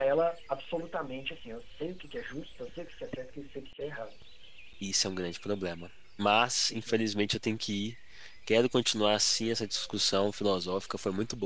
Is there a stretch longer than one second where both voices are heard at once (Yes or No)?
No